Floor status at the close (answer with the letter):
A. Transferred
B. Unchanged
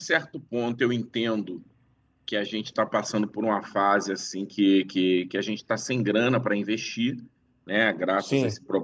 B